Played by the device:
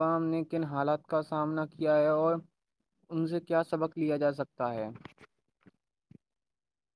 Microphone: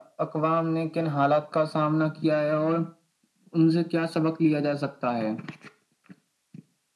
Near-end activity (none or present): none